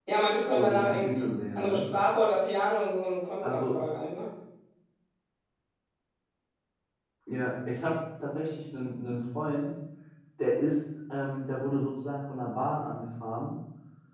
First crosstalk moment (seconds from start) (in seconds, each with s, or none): 0.5 s